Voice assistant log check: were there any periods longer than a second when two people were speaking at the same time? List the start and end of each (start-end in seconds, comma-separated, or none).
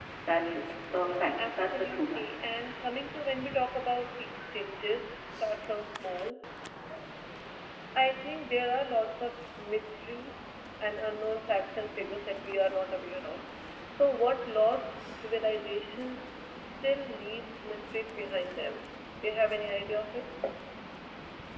1.0-2.2